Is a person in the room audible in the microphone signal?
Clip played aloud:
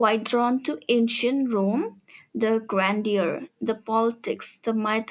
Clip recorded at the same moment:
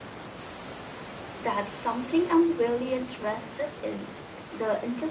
Yes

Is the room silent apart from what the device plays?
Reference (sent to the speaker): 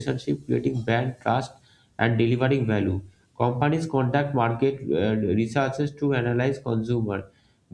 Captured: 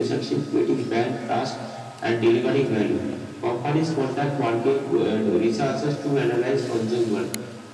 Yes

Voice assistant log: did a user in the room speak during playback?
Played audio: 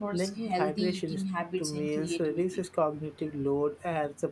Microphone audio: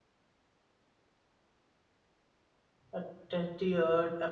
Yes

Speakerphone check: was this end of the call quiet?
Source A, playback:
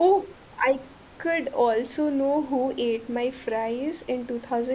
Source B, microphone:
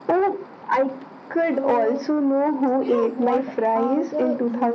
No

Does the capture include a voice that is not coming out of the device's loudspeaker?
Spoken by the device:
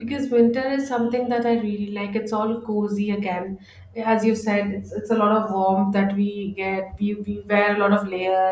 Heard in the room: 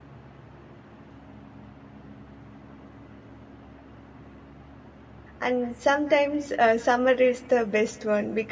Yes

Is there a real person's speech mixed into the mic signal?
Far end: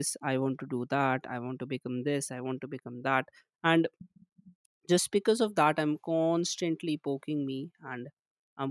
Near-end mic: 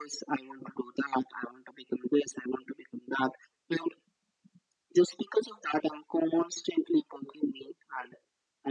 No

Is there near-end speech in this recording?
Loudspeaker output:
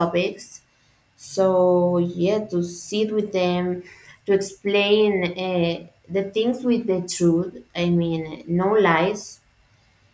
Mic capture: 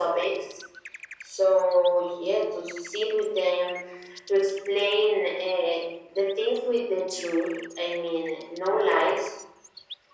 No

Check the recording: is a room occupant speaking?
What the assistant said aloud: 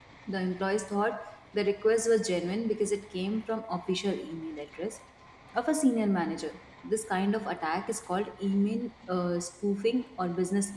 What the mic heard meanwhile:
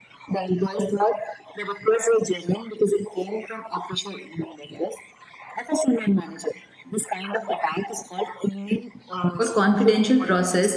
Yes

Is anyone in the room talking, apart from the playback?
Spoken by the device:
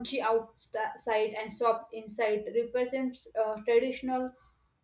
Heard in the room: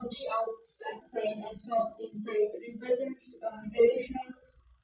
No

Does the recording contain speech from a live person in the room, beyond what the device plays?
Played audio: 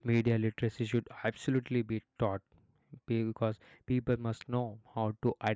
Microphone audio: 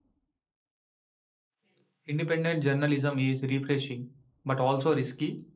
Yes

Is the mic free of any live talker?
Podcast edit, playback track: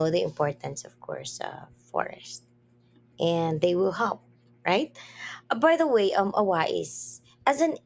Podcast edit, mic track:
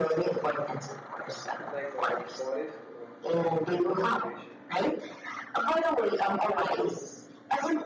No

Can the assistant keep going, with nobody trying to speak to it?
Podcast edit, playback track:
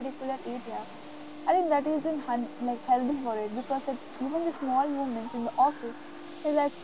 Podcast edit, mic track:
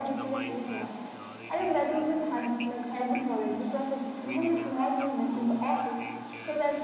No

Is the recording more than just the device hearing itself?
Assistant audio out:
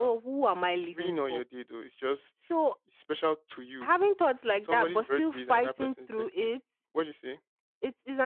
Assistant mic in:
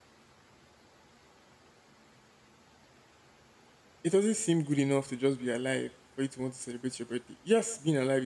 Yes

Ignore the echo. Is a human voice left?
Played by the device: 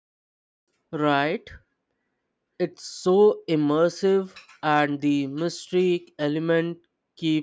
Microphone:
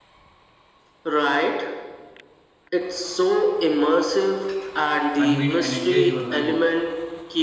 Yes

